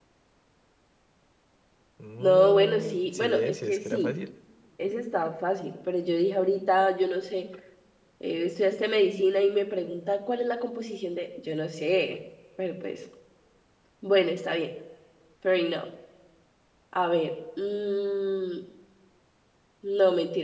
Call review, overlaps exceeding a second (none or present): present